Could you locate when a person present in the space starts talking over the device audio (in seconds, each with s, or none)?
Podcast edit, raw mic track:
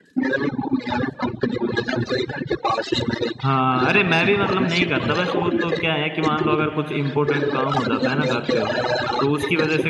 3.4 s